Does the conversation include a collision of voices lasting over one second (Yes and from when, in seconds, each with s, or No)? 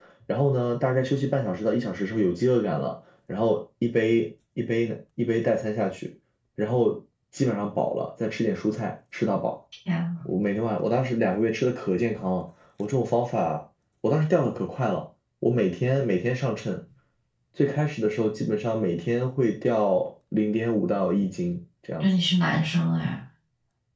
No